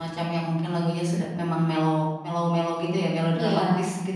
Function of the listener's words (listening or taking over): taking over